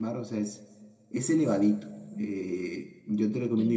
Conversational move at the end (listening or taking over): listening